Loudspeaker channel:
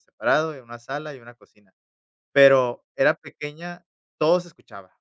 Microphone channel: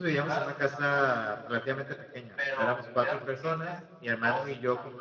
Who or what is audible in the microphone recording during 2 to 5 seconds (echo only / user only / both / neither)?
both